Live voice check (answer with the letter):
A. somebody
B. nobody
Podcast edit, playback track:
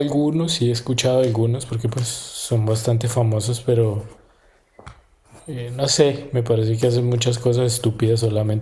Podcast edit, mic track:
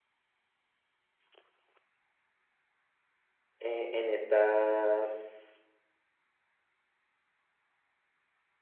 A